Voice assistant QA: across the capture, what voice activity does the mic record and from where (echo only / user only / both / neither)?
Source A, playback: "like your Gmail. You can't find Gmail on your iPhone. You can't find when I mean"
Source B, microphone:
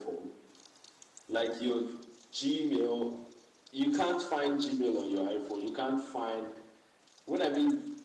echo only